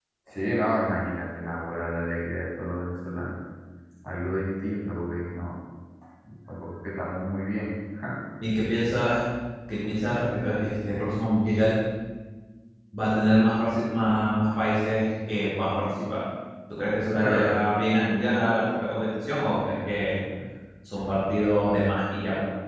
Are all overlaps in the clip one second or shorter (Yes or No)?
Yes